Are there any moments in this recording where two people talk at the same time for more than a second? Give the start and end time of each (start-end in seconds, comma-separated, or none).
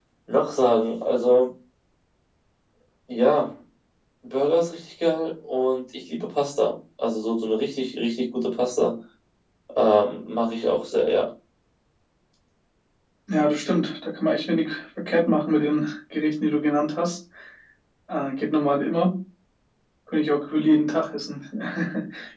none